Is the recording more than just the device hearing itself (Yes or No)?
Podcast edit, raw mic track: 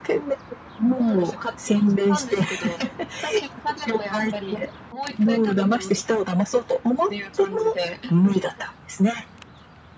No